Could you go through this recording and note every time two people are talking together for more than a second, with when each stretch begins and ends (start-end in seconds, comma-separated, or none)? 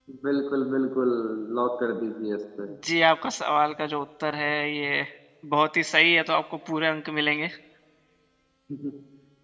none